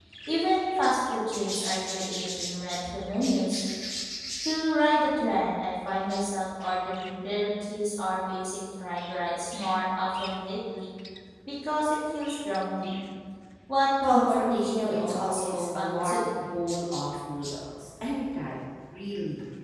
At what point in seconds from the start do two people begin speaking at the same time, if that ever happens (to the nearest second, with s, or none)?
14 s